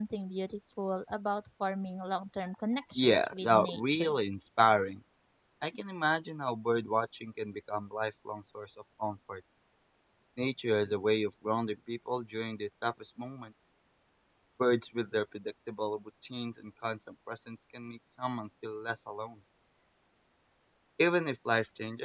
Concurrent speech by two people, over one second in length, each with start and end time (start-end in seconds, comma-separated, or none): 3.0-4.2